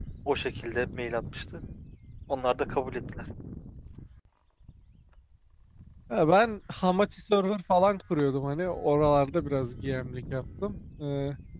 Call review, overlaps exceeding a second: none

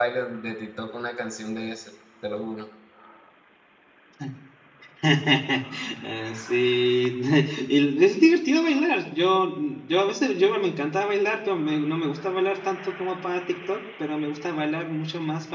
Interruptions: none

